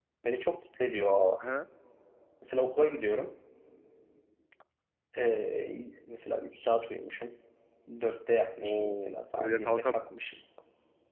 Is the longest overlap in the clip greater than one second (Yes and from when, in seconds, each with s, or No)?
Yes, from 8.6 s